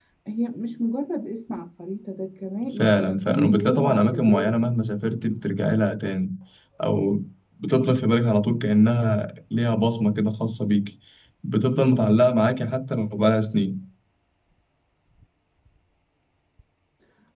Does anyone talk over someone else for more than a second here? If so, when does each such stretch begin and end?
2.8-4.6

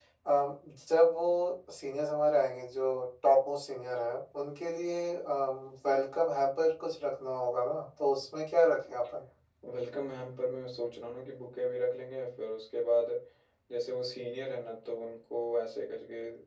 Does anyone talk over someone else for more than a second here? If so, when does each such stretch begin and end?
none

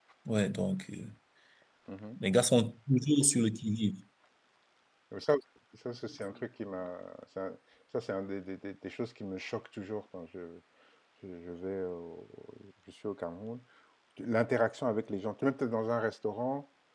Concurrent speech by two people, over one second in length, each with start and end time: none

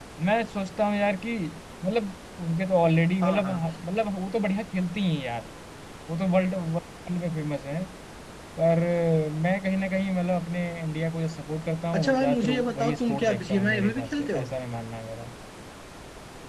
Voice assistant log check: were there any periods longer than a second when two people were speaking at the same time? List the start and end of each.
11.9-14.5

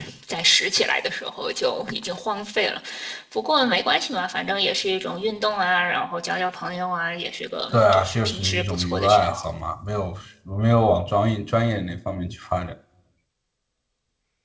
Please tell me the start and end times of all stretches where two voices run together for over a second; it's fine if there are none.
7.7-9.4

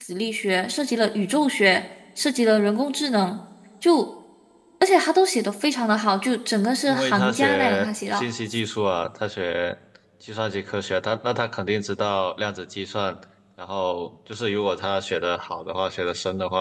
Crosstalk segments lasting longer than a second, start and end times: 6.9-8.3

